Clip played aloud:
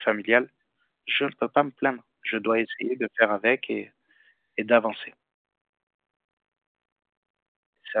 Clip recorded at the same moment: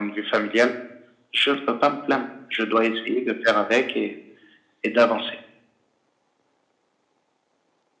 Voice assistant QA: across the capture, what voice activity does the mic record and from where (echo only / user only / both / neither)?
echo only